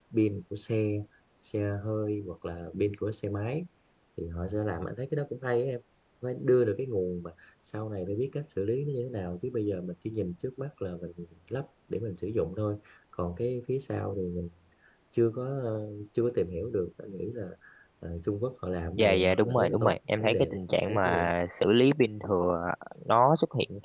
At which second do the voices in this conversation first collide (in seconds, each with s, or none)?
19.0 s